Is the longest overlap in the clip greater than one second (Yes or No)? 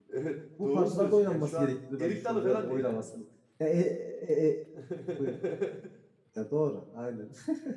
Yes